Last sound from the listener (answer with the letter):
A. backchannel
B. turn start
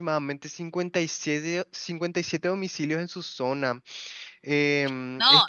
B